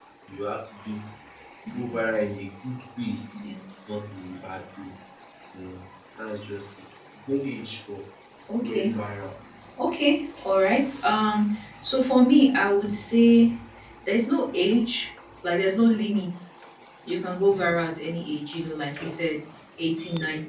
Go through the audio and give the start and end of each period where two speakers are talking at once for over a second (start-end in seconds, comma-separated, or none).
none